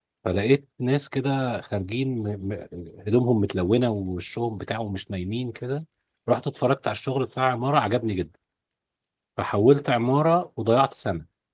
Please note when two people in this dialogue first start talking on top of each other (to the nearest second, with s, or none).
none